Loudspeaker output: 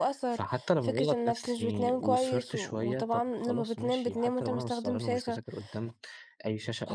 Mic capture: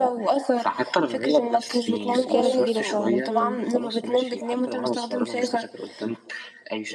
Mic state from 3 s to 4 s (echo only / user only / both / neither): both